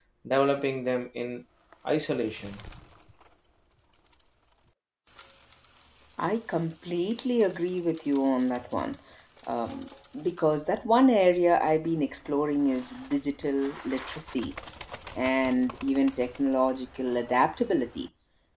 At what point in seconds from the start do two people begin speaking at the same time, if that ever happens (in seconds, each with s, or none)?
none